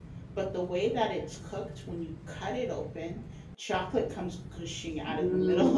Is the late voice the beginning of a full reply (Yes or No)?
Yes